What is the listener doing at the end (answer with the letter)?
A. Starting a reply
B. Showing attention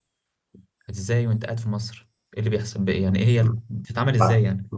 A